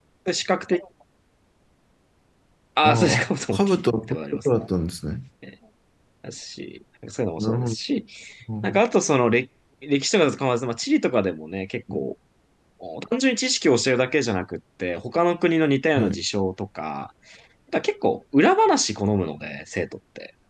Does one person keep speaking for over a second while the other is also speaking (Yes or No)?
Yes